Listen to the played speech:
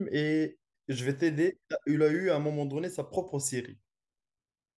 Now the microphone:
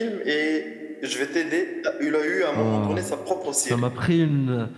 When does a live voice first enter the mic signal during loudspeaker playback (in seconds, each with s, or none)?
2.5 s